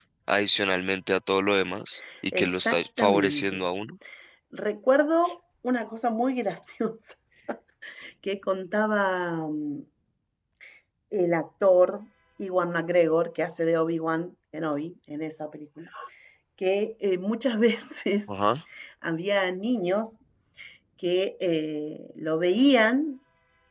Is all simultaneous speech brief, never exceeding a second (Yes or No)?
No